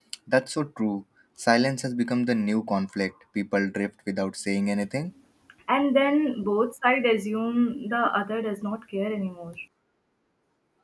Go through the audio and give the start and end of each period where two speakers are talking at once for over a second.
none

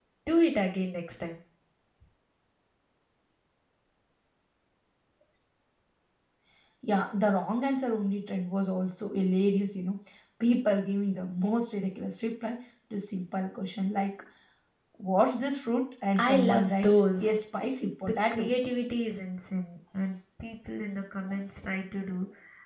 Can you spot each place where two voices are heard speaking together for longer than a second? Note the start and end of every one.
16.2-17.4

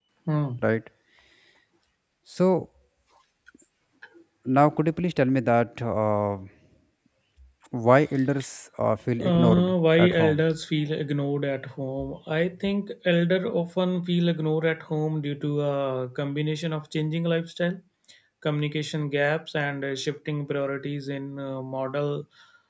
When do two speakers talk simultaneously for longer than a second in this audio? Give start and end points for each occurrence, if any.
9.2-10.4

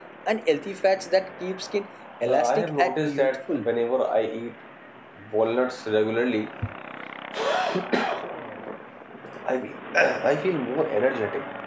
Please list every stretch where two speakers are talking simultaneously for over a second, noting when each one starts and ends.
2.2-3.7

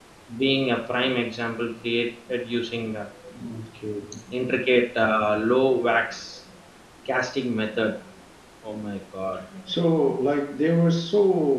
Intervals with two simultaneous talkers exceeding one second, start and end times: none

